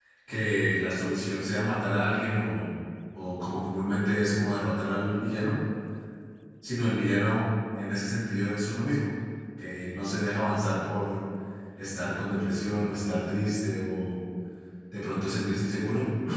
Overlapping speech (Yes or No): No